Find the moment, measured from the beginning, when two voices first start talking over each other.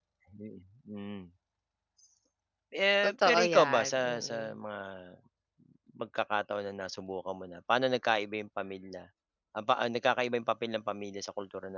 3.0 s

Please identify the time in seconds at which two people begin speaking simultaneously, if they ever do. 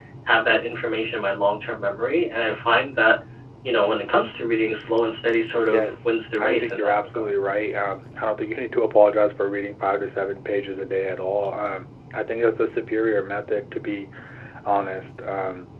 5.7 s

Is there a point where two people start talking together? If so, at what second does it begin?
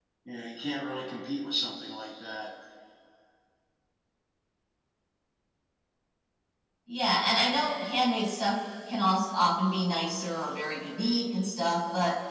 none

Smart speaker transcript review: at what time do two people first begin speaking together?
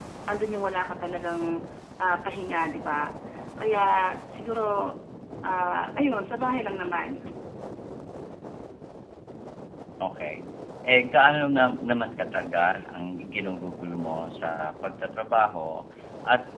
none

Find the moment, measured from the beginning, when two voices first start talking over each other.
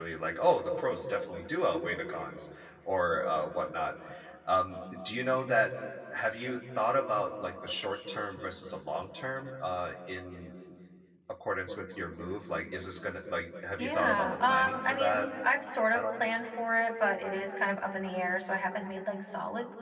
13.8 s

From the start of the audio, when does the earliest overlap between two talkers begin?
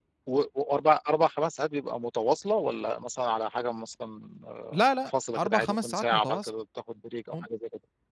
5.1 s

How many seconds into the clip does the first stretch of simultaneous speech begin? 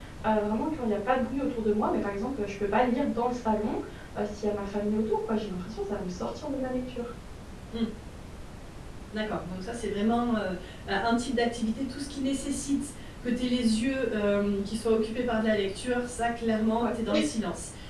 none

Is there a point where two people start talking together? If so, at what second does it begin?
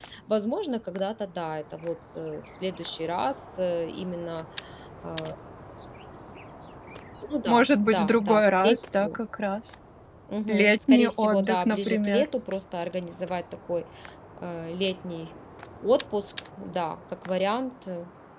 7.5 s

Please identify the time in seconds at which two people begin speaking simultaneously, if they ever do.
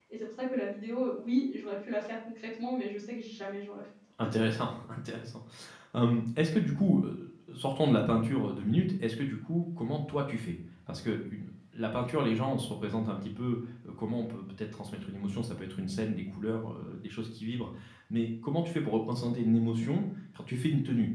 none

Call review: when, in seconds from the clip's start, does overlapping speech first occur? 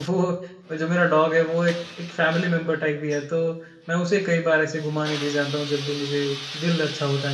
none

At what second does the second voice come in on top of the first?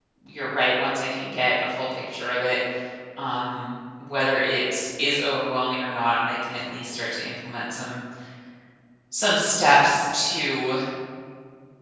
none

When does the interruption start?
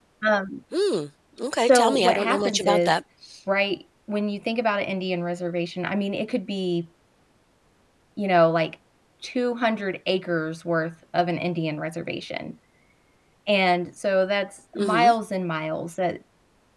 1.6 s

